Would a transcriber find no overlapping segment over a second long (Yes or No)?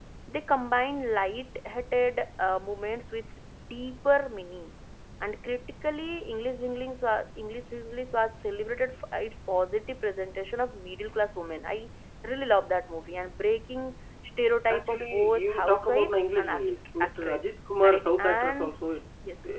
No